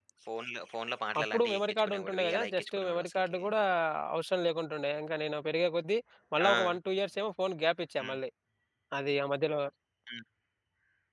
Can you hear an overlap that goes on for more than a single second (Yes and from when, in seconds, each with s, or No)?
Yes, from 1.2 s